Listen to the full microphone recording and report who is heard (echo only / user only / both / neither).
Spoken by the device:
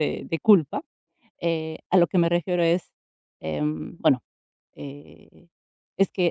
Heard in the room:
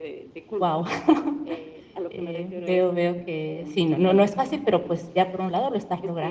both